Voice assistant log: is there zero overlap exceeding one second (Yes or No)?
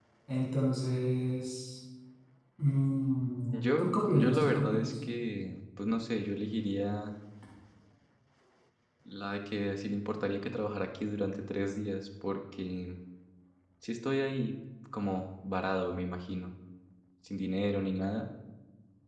No